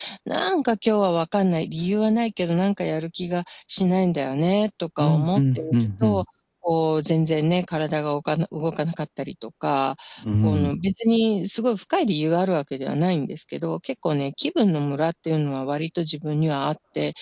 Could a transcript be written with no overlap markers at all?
No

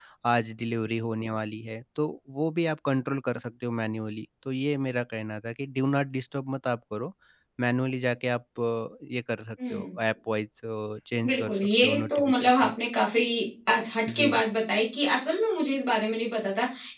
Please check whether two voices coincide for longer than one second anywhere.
Yes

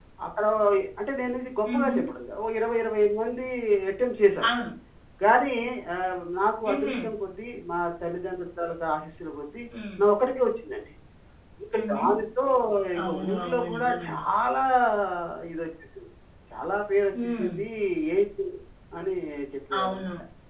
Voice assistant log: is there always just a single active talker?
No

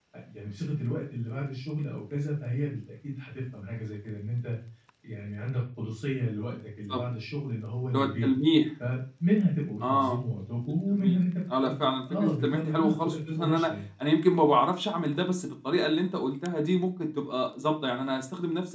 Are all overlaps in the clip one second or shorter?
No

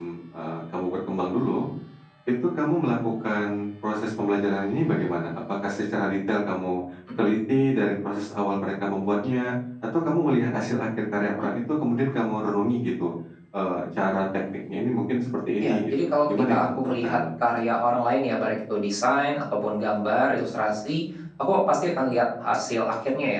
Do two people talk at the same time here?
Yes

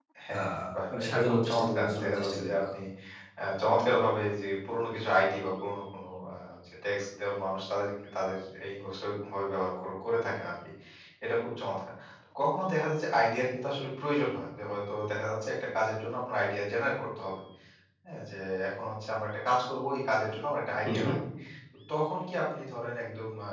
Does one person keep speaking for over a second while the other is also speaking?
Yes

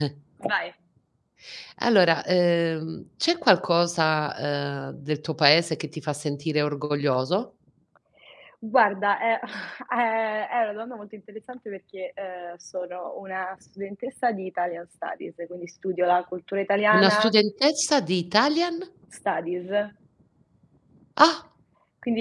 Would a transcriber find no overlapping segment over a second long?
Yes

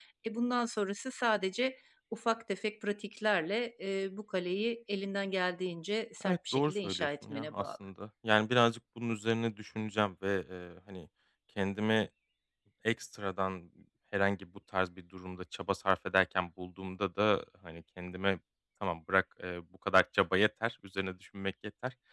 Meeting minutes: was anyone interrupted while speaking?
Yes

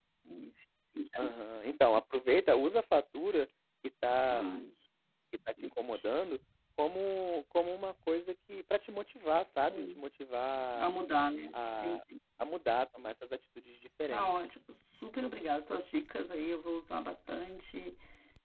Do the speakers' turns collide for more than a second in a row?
No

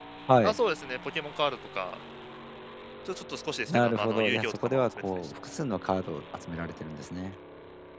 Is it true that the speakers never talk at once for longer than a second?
No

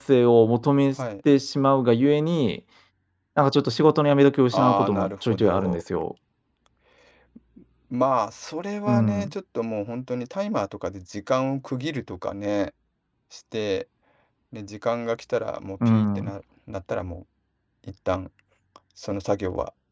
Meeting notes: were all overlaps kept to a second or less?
No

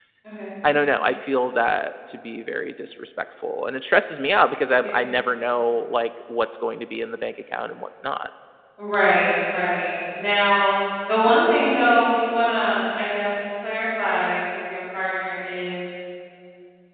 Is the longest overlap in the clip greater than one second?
No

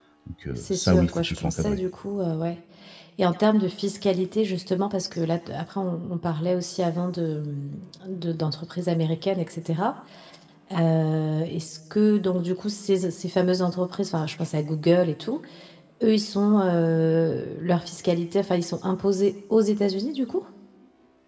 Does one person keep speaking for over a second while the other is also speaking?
Yes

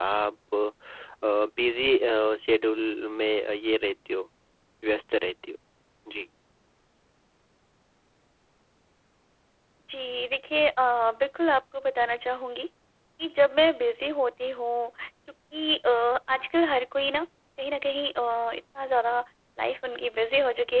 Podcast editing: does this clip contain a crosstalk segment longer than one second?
No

